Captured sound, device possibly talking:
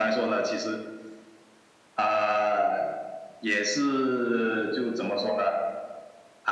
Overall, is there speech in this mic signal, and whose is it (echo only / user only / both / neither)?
echo only